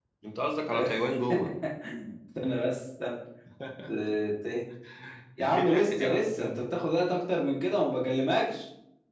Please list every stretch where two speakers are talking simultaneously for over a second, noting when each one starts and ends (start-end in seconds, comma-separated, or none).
5.4-6.7